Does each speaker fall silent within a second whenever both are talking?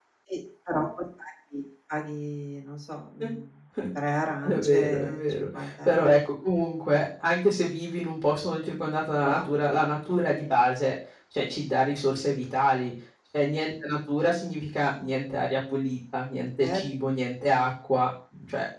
No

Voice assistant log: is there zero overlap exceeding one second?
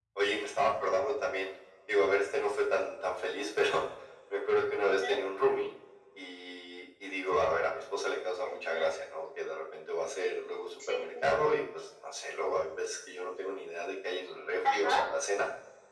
Yes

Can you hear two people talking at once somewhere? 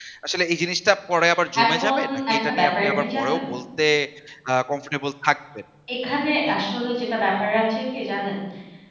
Yes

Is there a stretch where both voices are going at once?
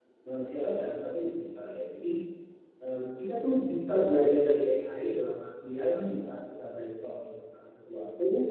No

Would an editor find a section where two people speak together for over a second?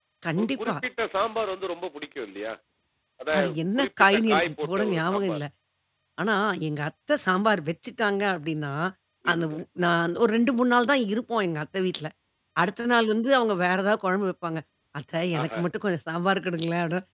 Yes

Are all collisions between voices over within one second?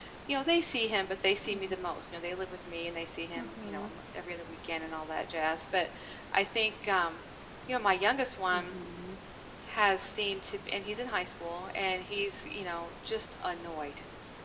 Yes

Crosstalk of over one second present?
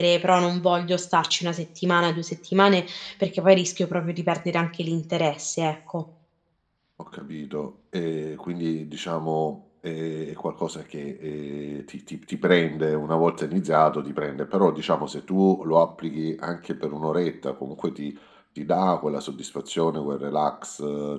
No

